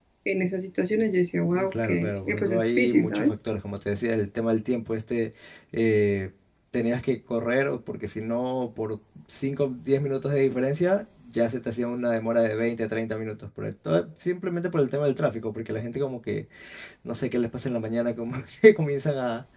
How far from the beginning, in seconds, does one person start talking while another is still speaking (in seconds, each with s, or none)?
1.5 s